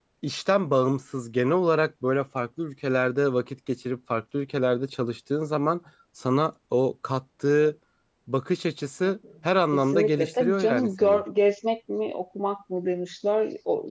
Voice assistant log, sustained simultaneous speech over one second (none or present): present